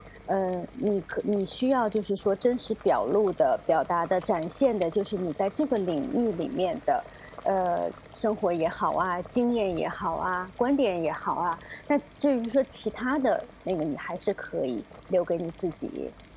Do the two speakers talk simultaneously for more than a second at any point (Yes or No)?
No